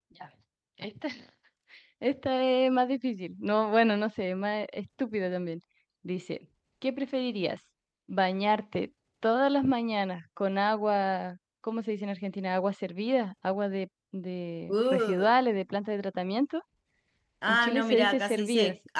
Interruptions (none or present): present